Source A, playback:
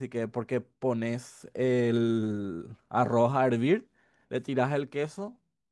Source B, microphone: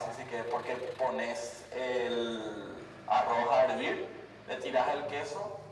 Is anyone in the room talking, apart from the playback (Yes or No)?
No